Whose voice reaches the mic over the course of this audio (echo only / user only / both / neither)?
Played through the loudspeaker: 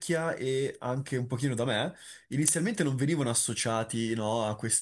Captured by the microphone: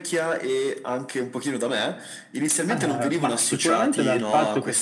both